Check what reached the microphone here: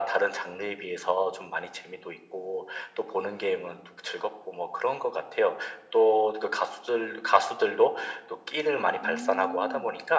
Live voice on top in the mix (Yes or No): No